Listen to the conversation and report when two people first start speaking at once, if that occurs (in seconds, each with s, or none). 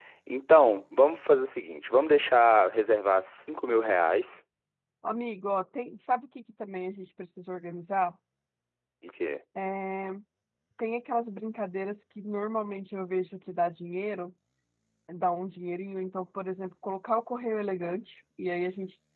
none